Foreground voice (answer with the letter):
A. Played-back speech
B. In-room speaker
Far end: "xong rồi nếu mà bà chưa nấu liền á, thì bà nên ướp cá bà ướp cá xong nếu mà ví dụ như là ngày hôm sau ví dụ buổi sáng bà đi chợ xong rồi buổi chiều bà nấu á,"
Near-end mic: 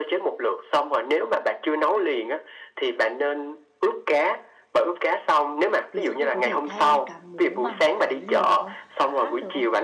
A